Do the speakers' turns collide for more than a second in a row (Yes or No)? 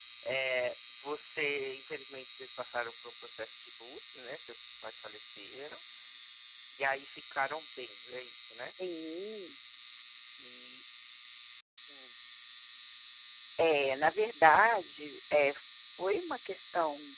No